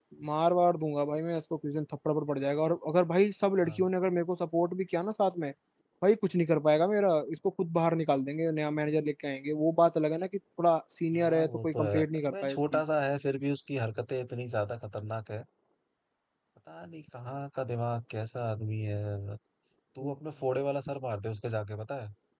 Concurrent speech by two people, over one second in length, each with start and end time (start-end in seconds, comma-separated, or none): 11.1-12.8